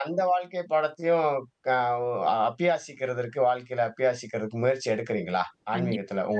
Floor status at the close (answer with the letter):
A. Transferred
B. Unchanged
A